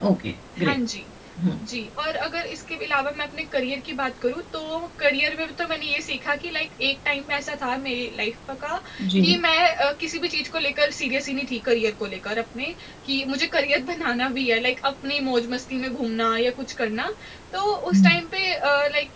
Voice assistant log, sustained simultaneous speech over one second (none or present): none